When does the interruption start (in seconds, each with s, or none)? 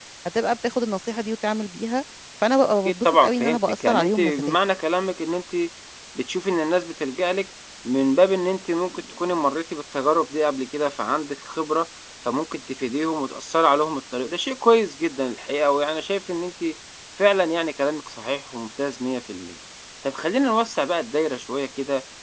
2.9 s